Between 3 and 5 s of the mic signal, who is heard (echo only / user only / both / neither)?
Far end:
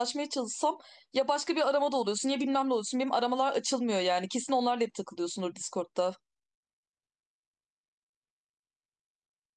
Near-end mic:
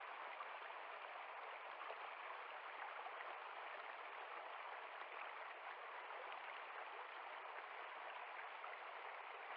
neither